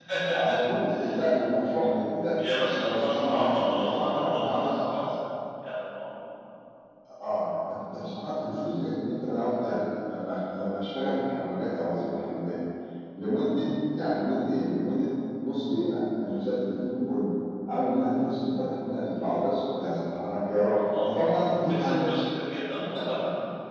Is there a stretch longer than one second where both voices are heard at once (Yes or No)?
Yes